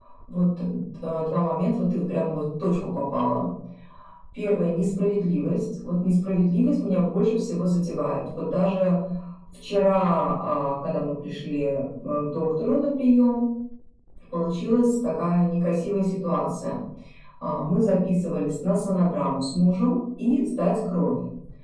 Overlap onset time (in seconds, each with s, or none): none